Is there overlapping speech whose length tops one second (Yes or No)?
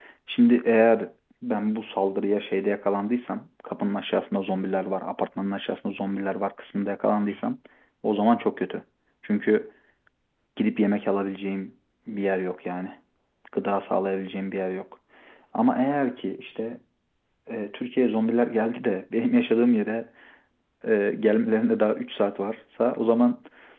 No